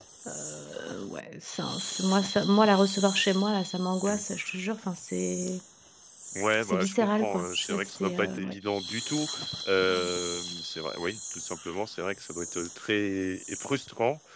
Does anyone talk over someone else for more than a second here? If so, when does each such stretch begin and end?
6.6-8.6

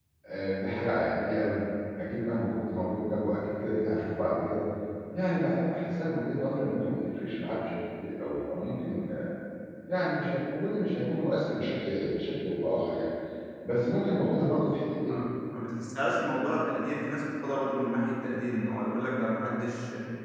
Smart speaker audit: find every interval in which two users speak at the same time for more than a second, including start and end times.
none

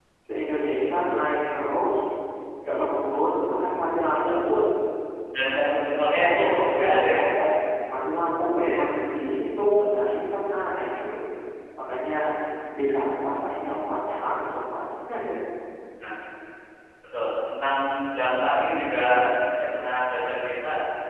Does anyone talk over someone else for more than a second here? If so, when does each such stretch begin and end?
5.6-7.3

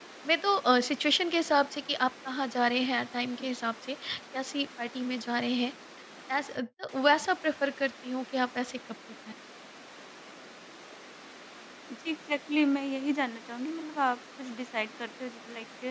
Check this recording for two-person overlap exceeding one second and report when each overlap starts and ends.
none

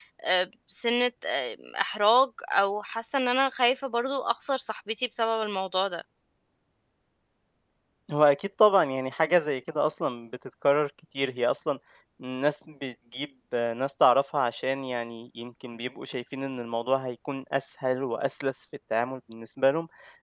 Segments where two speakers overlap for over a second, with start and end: none

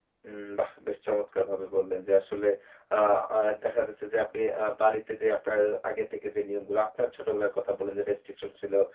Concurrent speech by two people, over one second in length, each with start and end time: none

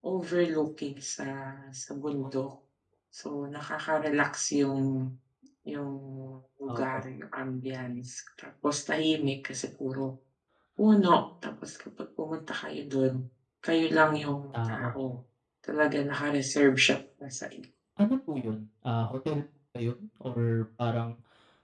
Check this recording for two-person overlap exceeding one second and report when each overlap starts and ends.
none

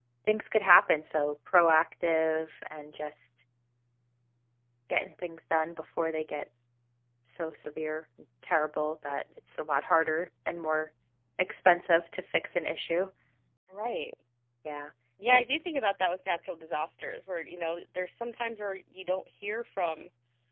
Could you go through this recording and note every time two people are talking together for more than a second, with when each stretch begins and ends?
none

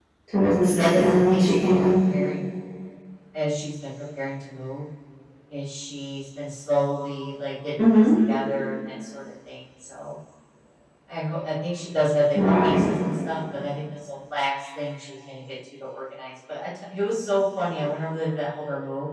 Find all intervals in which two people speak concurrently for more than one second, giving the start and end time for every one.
0.7-1.9

